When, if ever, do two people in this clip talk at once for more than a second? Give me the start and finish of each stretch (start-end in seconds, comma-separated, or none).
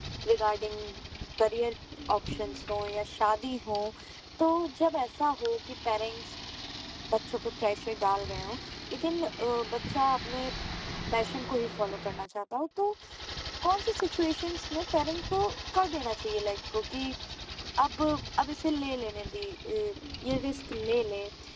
none